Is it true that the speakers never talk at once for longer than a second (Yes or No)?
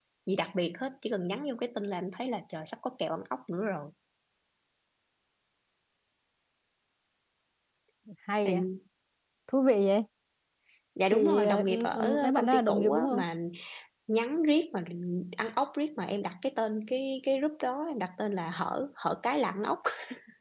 No